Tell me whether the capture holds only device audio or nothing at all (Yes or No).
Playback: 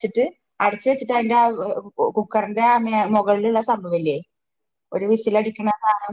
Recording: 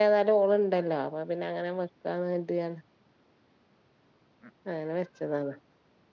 No